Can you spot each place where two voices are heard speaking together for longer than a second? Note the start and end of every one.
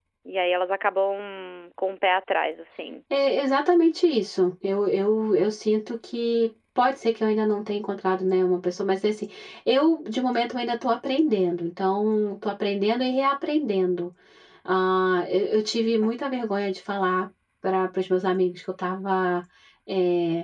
none

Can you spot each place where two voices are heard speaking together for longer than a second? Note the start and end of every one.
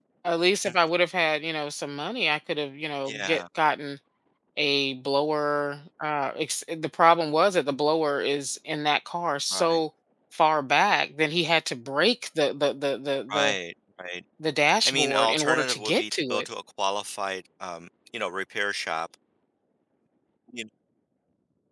14.8-16.4

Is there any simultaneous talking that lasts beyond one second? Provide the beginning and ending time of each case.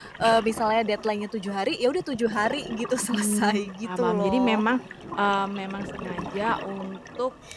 3.1-4.7

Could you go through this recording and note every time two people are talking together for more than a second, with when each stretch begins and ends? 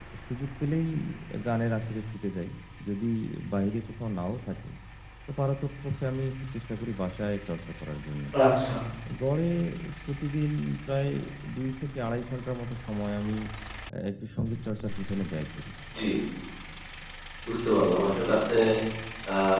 none

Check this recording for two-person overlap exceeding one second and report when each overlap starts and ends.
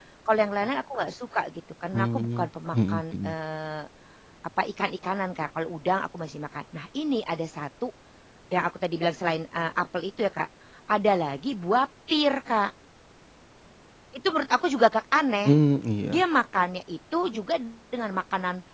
1.9-3.3

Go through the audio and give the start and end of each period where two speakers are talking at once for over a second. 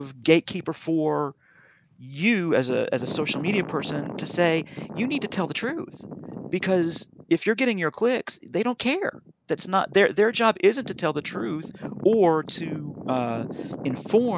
none

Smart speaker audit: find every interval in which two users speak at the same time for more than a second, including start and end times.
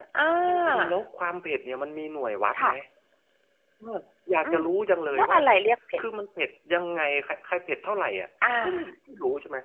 none

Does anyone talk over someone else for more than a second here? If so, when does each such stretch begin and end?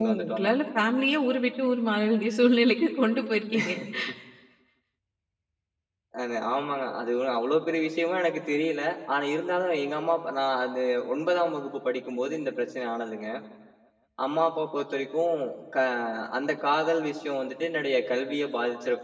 none

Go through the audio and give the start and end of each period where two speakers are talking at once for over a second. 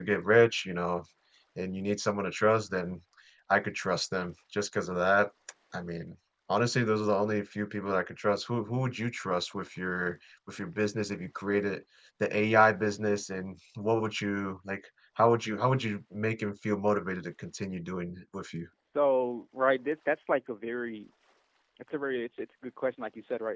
none

